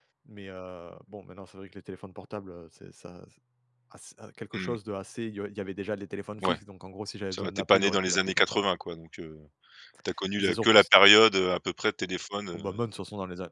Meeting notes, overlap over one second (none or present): present